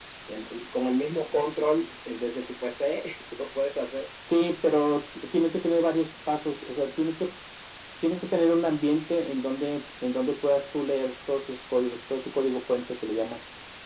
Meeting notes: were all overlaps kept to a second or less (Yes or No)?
Yes